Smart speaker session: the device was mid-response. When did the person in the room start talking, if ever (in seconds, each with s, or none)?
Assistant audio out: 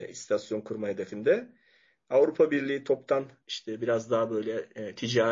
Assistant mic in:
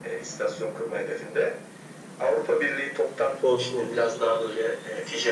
3.4 s